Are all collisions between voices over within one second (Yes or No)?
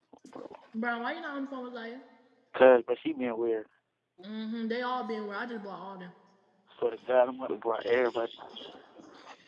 Yes